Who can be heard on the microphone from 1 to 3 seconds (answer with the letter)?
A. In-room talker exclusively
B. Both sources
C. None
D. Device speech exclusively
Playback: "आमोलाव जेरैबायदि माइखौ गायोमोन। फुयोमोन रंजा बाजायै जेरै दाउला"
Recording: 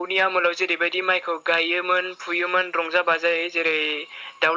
D